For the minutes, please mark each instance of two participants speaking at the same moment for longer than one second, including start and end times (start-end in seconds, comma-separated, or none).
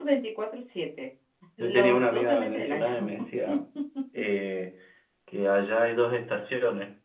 1.6-2.9